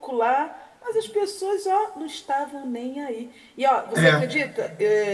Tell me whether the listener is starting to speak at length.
No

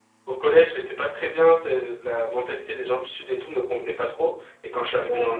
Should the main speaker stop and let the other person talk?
No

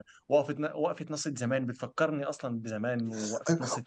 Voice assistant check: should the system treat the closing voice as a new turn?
Yes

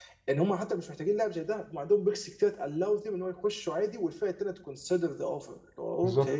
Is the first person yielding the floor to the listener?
Yes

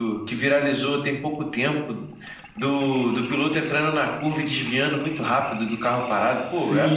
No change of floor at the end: No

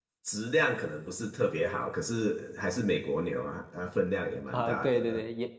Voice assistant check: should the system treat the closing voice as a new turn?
Yes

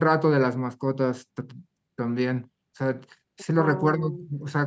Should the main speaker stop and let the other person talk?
No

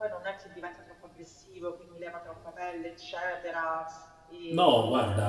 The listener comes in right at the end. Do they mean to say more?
Yes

